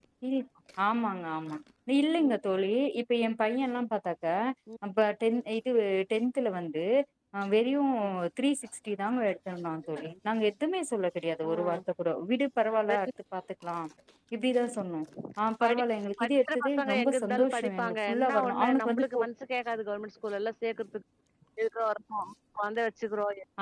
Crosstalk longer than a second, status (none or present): present